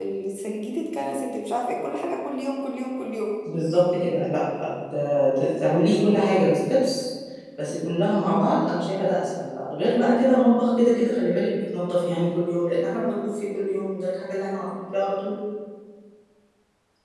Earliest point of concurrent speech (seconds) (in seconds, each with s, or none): none